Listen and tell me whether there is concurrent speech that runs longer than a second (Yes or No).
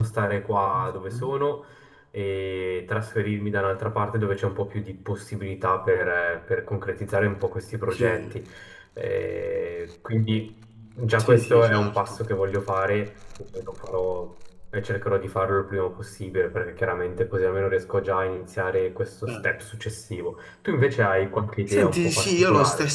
Yes